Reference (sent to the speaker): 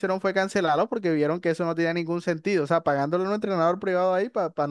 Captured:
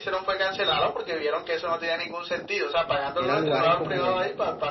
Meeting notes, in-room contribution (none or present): present